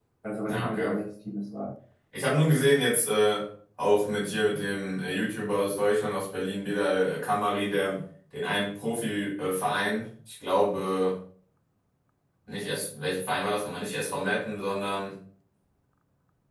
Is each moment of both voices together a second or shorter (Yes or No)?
Yes